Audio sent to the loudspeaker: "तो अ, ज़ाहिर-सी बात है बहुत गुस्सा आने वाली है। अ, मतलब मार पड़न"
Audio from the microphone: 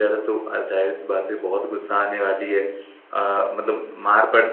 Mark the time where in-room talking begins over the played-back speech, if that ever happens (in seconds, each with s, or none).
none